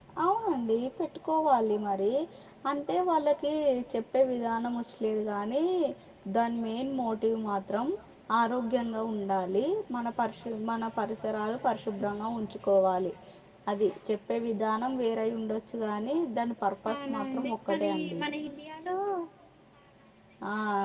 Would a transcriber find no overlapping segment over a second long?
No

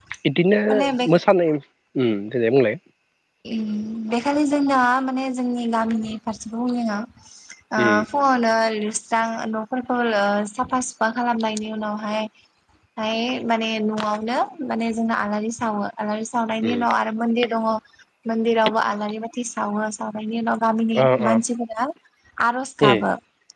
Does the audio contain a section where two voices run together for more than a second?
No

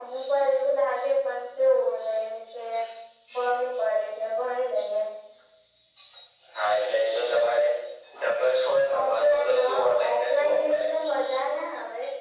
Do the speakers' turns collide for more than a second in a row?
Yes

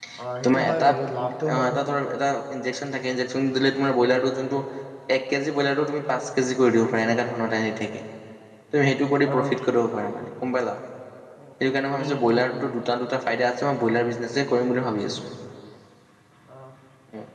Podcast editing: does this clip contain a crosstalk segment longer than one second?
No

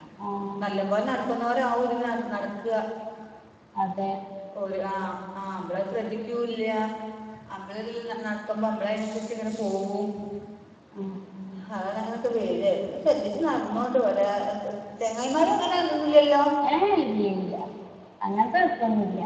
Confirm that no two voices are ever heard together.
Yes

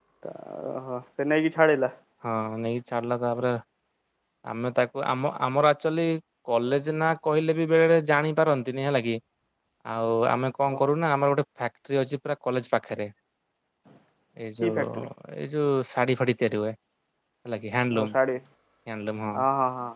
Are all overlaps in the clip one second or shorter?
Yes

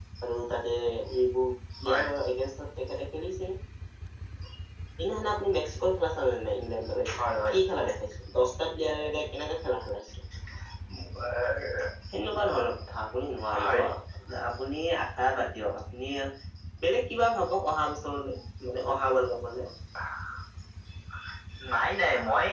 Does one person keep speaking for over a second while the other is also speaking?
No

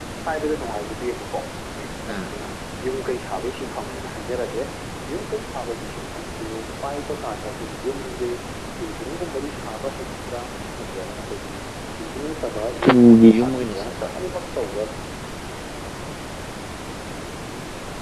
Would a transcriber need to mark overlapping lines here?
Yes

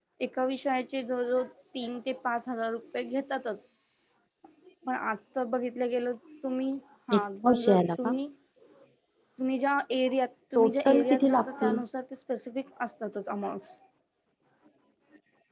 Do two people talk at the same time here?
Yes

